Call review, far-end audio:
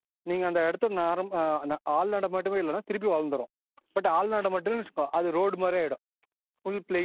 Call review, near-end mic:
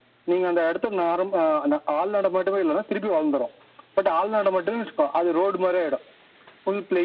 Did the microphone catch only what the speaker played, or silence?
Yes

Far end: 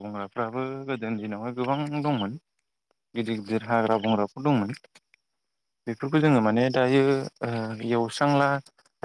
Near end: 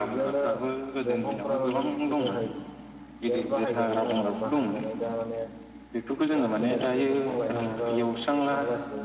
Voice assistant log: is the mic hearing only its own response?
No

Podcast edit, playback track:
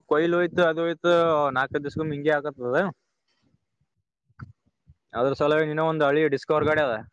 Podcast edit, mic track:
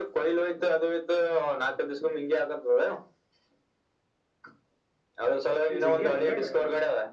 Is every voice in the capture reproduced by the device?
No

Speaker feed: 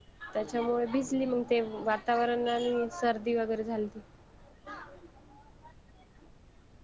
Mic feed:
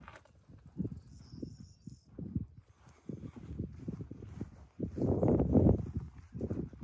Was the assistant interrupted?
No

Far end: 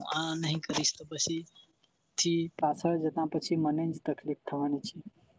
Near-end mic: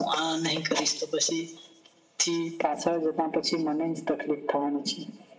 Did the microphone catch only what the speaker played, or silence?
Yes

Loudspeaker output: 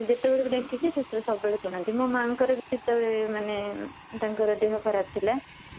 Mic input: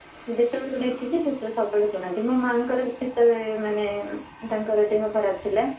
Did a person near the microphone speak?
No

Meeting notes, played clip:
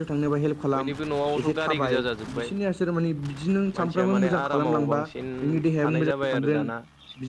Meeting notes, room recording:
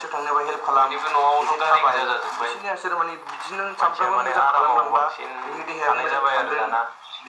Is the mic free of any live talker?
Yes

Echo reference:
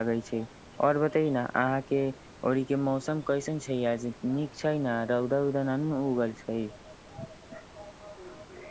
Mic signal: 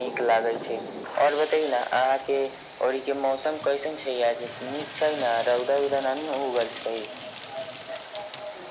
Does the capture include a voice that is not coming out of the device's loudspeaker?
No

